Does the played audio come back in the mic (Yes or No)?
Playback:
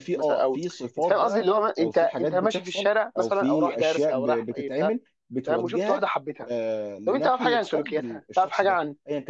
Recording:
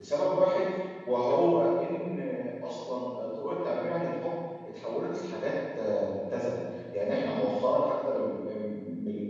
No